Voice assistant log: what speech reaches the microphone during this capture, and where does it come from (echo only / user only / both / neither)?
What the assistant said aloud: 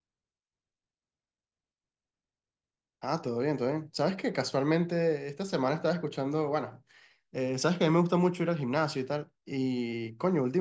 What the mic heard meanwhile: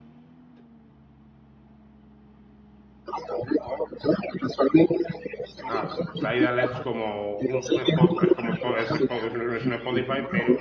both